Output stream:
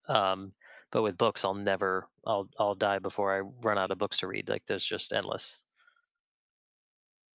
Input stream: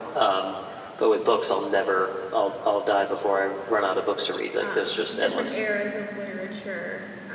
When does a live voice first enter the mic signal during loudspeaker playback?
5 s

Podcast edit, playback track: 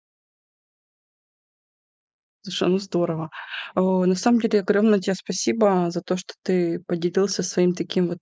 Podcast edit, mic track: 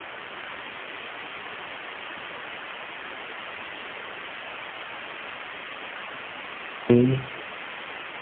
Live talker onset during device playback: 7 s

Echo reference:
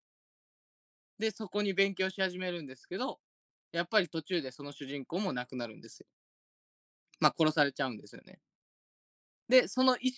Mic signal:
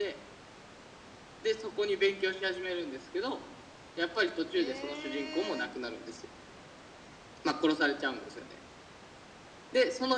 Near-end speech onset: 5 s

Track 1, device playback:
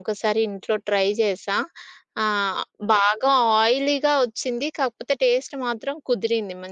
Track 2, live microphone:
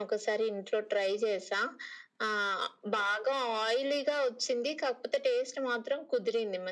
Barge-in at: none

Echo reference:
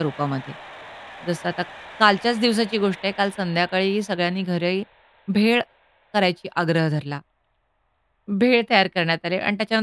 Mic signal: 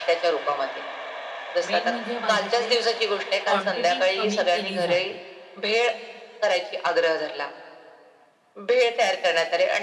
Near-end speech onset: 2 s

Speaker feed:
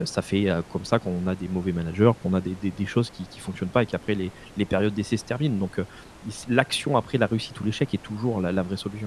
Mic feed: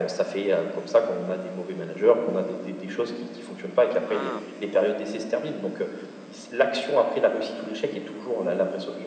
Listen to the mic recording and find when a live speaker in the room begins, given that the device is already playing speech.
4 s

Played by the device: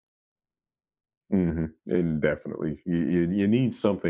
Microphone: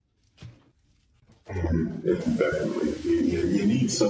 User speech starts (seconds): none

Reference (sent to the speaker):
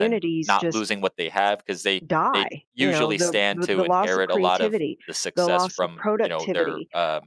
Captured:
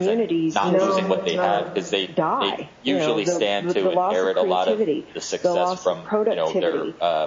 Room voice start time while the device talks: 1 s

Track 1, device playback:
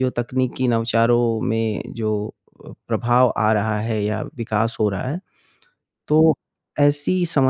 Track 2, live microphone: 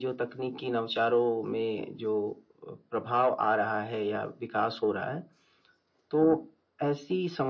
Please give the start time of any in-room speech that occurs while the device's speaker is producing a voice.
none

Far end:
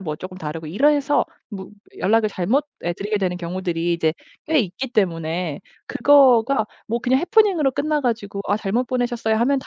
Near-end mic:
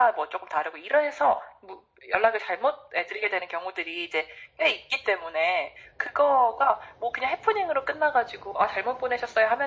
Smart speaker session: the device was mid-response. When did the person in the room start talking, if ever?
none

